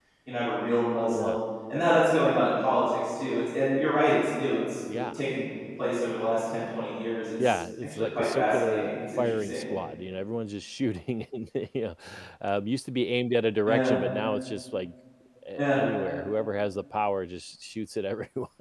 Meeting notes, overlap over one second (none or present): present